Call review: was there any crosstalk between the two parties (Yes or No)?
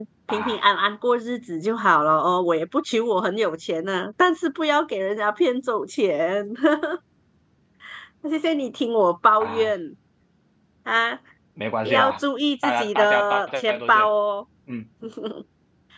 Yes